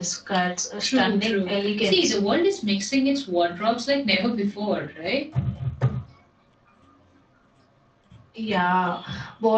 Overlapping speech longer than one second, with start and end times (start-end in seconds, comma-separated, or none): 0.8-2.2